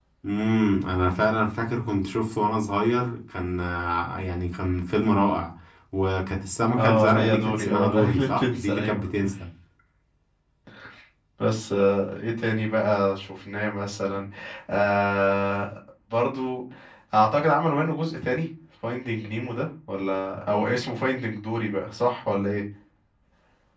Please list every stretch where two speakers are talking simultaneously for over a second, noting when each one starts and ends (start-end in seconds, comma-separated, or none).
6.8-9.1